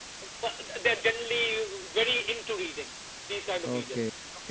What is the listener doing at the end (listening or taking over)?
taking over